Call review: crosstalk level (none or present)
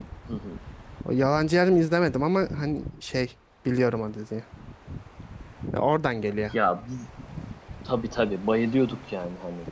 none